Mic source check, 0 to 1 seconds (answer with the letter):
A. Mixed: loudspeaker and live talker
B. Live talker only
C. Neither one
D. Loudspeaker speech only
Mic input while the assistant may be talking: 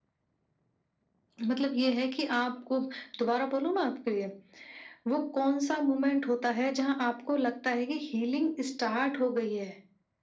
C